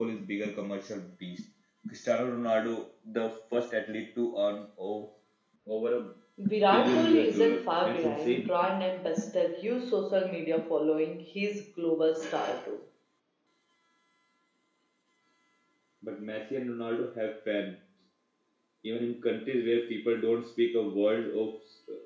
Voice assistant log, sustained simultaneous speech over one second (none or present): present